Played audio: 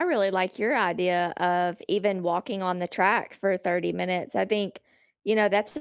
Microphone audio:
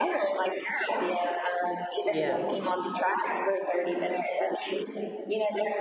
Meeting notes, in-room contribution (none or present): present